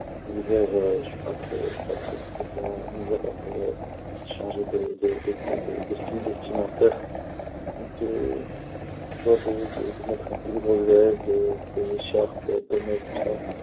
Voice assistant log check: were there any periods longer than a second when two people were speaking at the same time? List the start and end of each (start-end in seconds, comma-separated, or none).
none